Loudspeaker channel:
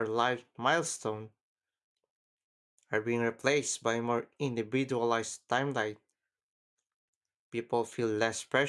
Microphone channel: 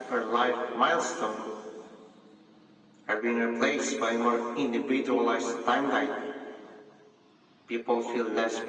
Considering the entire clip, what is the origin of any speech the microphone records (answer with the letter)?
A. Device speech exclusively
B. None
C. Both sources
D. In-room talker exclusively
A